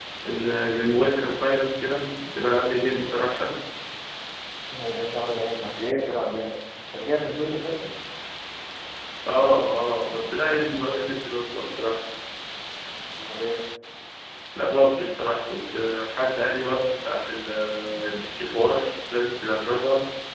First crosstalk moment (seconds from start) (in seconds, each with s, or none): none